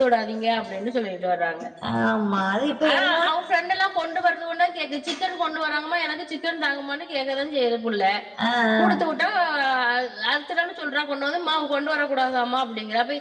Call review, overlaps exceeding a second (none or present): none